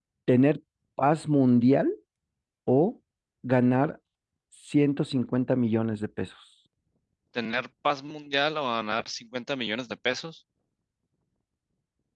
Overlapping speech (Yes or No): No